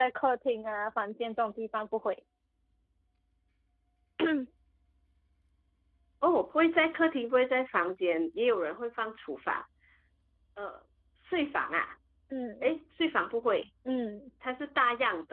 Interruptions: none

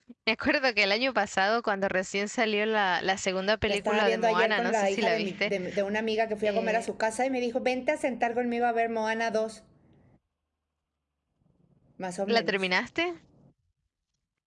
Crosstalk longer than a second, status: present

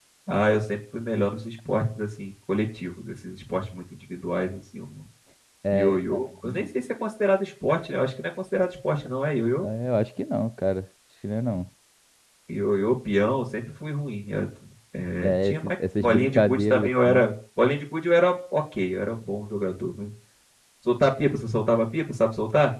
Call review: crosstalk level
present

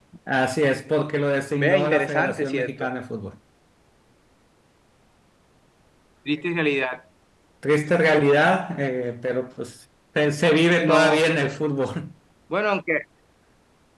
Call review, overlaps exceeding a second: present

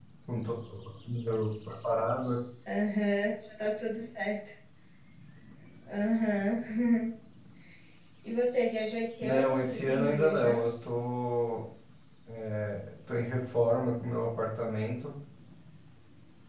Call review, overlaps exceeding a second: present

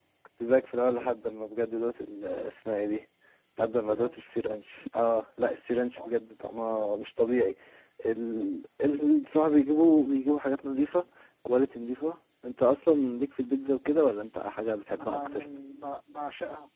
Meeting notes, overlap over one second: none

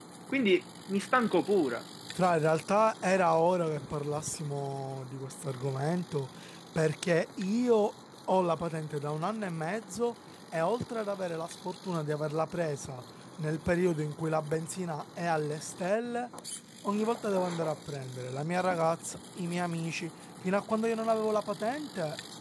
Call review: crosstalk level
none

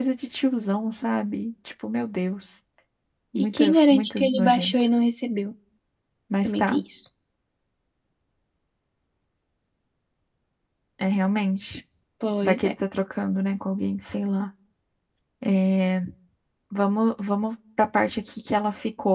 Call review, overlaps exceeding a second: present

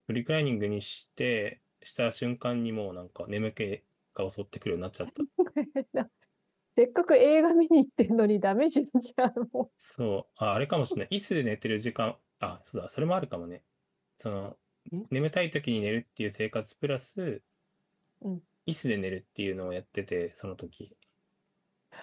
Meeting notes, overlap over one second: none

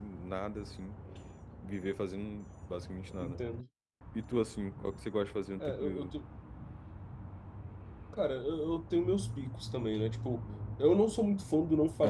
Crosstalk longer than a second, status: none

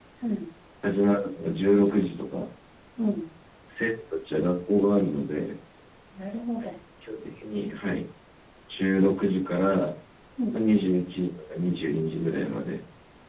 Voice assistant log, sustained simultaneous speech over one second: none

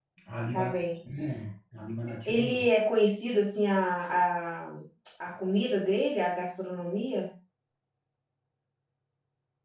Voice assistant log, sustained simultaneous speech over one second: none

